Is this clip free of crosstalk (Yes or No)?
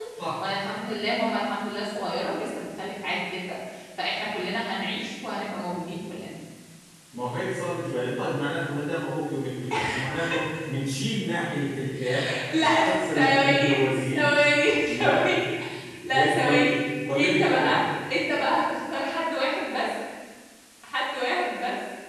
No